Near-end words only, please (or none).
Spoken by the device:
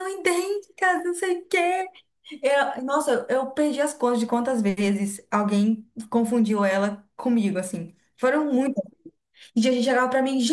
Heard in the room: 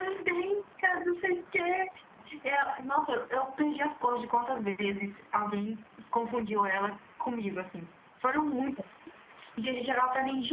none